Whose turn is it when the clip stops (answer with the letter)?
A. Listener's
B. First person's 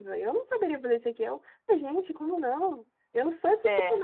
B